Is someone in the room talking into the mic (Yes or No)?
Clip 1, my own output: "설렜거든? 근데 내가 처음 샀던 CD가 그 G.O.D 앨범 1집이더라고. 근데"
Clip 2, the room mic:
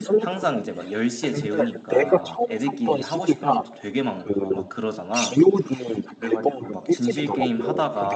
Yes